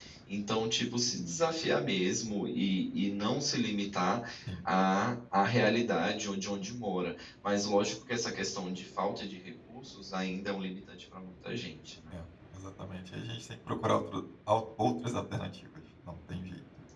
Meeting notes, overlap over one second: none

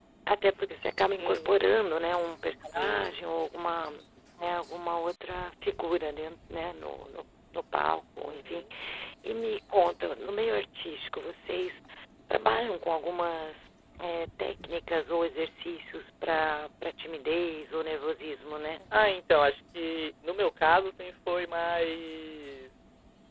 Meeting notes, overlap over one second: none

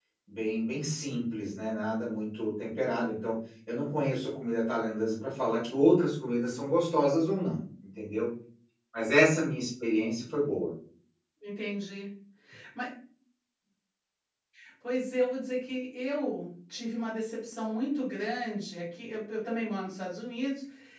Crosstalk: none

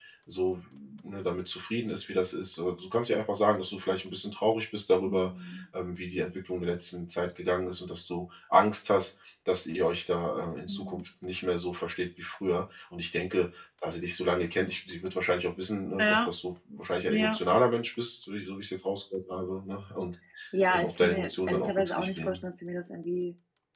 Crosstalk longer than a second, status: present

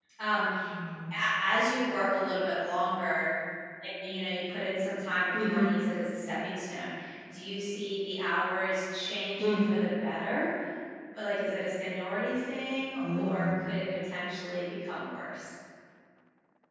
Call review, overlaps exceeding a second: none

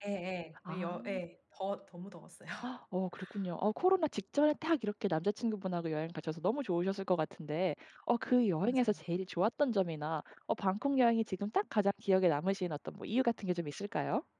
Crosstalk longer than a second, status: none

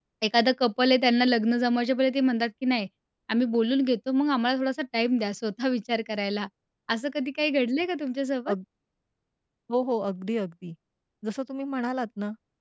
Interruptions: none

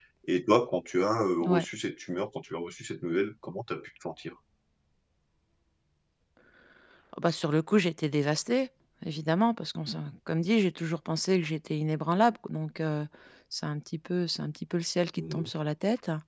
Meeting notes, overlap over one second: none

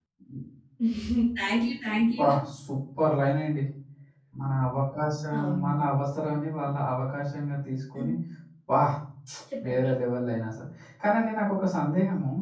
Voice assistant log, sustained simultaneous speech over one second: none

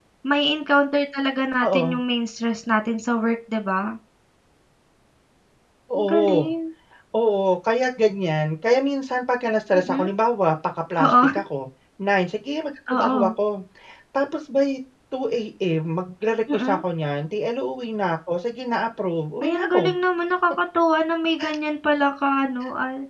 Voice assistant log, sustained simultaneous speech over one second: none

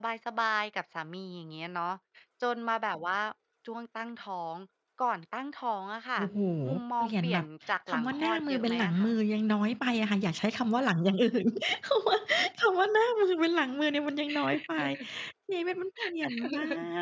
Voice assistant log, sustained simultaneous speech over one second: present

